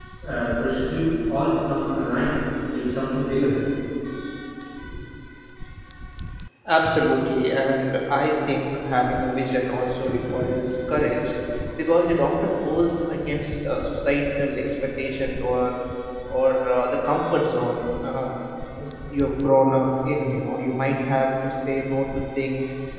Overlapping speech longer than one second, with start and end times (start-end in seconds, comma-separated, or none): none